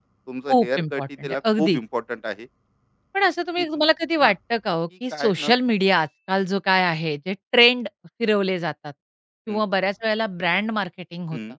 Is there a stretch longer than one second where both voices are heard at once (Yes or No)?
Yes